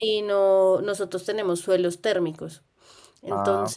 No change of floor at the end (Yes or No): Yes